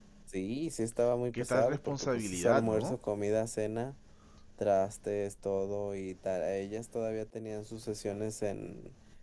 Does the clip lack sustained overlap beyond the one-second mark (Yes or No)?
No